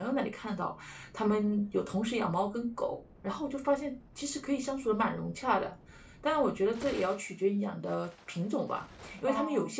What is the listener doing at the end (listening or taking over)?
listening